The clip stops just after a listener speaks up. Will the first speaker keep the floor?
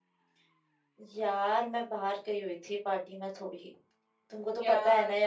Yes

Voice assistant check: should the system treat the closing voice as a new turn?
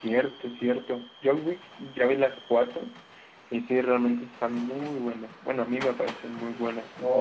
Yes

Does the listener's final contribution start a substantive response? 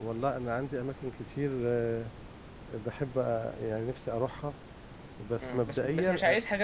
Yes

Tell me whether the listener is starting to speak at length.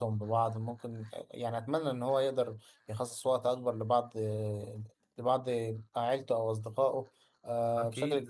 Yes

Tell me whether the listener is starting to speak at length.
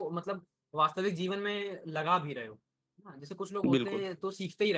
No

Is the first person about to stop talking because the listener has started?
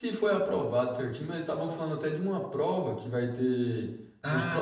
Yes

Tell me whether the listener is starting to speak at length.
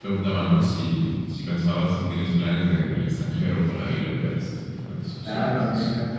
Yes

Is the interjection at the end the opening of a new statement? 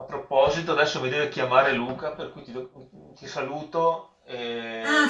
Yes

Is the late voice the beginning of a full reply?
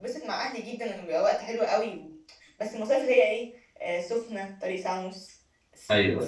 No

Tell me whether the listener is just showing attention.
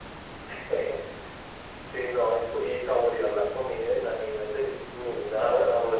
No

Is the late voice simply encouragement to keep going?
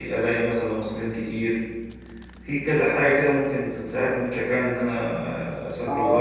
No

